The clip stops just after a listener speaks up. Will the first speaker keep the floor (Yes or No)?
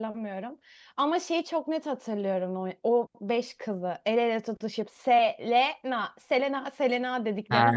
No